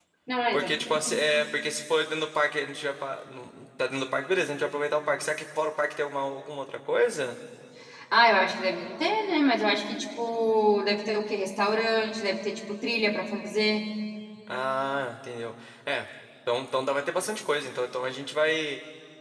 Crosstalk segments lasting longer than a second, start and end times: none

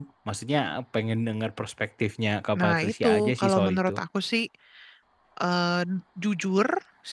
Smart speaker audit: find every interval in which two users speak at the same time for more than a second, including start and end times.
2.6-3.9

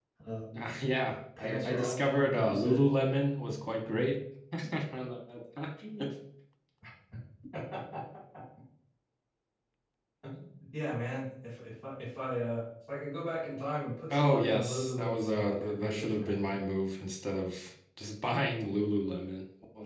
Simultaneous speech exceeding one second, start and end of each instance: 1.4-2.9, 14.1-16.6

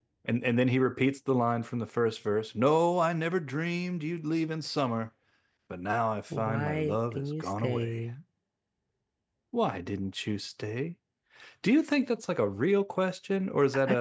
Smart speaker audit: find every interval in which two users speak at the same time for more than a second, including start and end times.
6.4-8.0

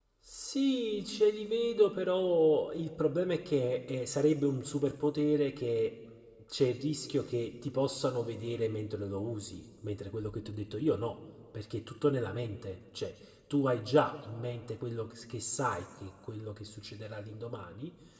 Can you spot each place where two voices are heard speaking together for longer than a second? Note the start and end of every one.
none

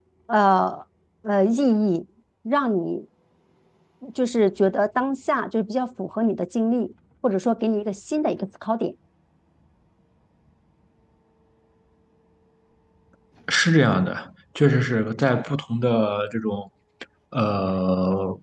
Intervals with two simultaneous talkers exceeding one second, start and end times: none

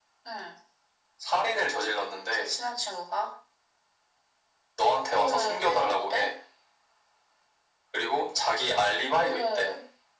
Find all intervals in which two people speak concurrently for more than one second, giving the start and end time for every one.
5.1-6.3

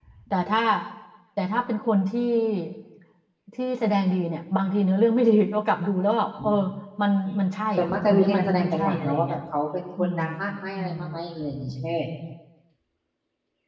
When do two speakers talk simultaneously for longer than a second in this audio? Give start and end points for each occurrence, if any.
7.8-9.4

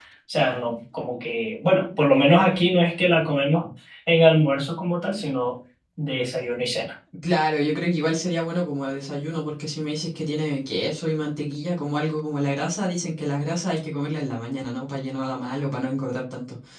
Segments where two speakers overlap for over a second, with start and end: none

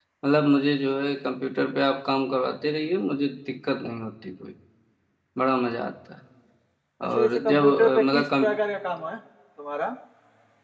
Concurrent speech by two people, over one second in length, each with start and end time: 7.2-8.5

